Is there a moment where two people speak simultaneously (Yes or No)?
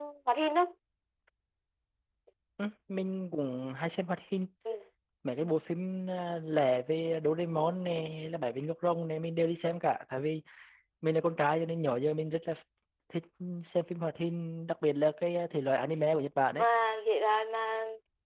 No